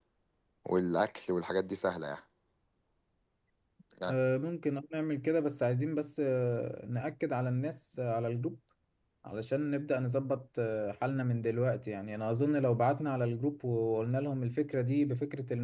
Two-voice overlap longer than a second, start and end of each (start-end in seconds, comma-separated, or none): none